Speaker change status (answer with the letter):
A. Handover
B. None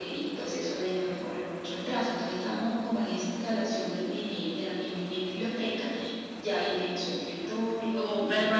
A